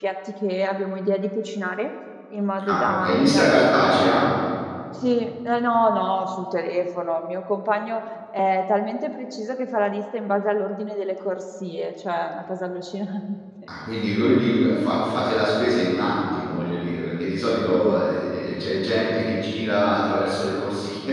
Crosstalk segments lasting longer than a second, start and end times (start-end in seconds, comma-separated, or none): 2.6-3.9